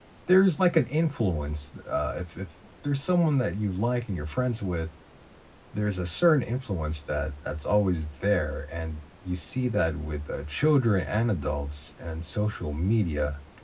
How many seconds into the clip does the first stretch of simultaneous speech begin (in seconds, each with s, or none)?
none